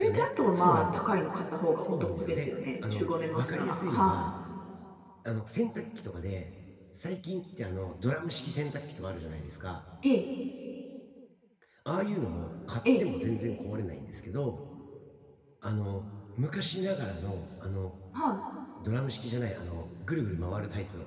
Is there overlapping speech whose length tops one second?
Yes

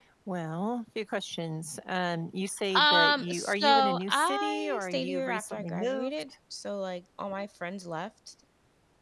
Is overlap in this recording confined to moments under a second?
No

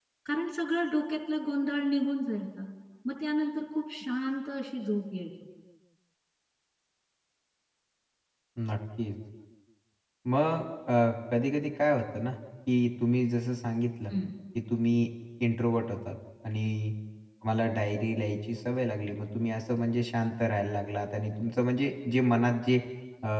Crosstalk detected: No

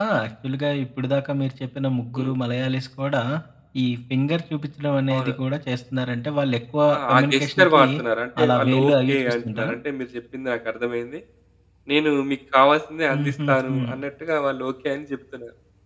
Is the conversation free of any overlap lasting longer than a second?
No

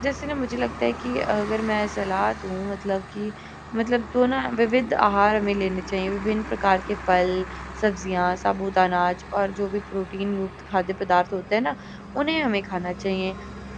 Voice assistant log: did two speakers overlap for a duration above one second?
No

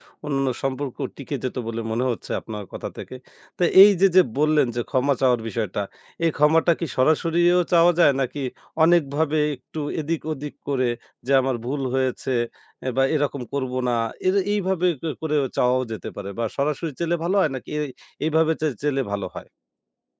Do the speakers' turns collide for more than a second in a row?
No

